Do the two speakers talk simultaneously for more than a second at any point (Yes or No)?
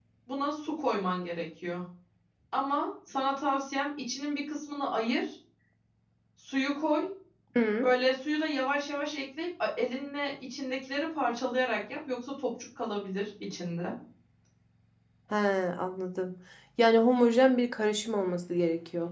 No